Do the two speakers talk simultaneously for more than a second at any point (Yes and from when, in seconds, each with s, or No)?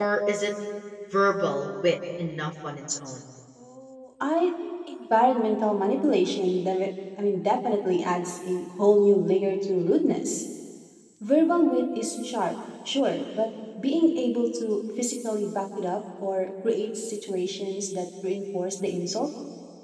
No